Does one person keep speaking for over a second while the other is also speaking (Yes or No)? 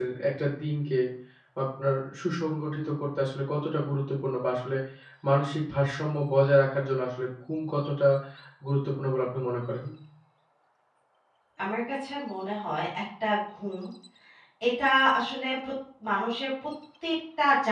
No